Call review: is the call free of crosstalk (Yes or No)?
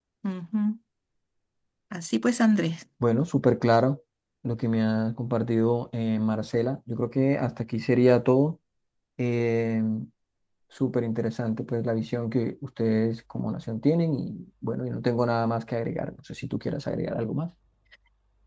Yes